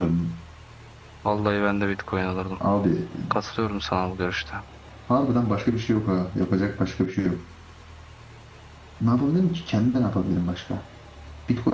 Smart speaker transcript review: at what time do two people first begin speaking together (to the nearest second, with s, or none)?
none